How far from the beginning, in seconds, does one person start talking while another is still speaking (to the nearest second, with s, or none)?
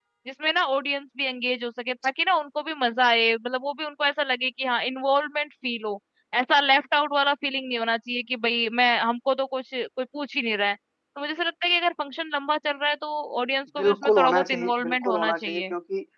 14 s